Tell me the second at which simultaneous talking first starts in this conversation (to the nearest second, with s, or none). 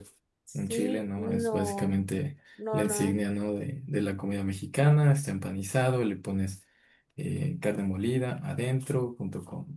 1 s